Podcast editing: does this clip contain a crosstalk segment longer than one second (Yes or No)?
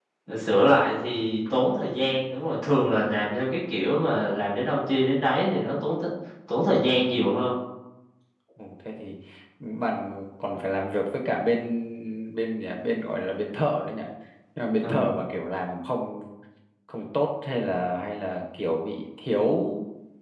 No